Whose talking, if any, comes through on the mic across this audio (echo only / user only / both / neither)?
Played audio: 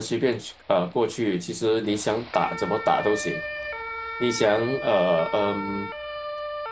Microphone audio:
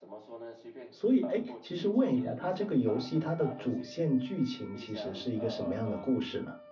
both